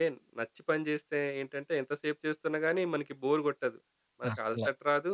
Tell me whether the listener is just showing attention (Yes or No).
Yes